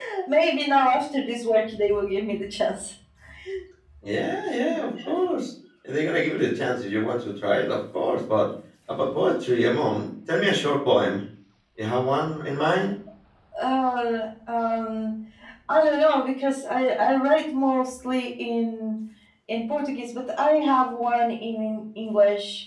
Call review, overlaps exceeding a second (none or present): none